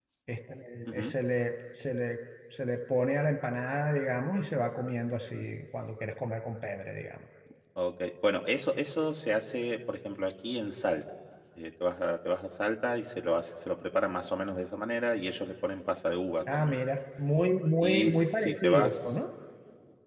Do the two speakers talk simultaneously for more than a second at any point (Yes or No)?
Yes